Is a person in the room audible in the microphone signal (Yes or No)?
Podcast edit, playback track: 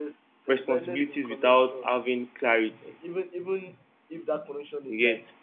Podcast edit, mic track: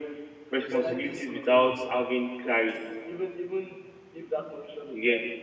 Yes